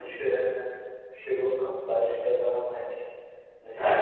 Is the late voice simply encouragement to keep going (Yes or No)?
No